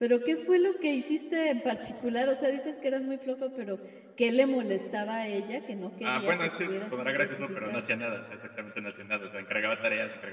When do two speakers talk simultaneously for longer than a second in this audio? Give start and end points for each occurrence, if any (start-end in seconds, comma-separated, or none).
6.0-7.8